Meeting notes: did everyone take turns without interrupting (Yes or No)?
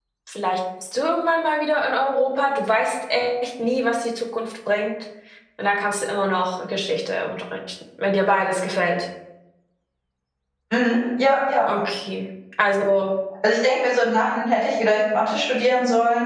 Yes